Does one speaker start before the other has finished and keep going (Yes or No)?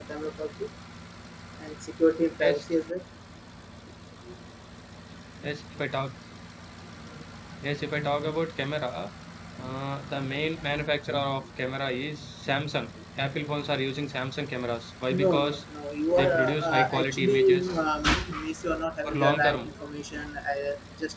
Yes